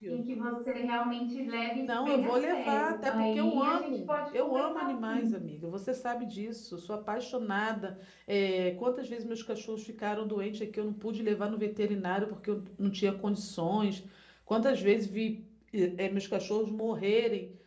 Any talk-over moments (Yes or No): Yes